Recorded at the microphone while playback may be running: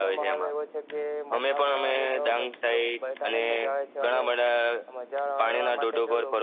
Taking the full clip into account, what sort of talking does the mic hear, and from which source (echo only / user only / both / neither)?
echo only